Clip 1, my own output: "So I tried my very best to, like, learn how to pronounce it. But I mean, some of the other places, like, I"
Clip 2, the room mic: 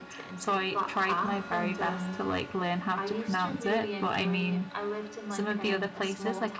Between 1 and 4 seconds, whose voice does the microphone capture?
both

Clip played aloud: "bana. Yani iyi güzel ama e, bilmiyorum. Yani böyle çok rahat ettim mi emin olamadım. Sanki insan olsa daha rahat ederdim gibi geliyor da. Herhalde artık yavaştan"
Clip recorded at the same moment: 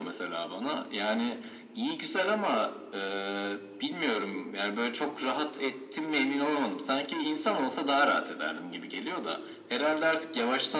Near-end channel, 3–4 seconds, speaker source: echo only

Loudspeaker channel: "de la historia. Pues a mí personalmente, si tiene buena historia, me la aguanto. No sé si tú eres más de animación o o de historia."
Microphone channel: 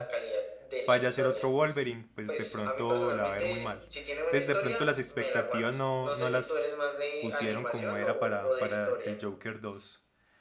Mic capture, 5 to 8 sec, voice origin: both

